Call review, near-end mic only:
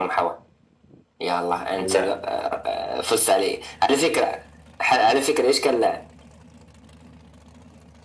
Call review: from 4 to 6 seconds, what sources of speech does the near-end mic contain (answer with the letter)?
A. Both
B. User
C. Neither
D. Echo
D